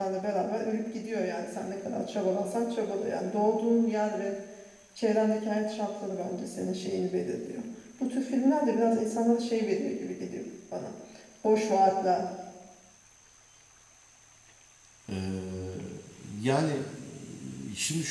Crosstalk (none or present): none